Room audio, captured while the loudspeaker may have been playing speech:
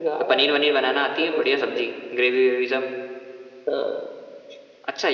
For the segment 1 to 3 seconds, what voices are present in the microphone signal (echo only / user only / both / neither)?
echo only